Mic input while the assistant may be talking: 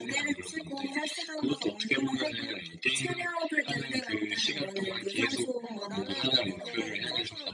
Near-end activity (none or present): present